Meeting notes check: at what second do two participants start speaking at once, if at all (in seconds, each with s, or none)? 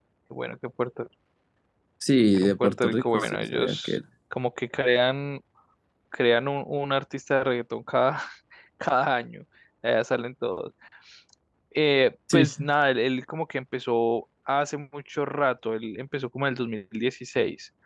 2.4 s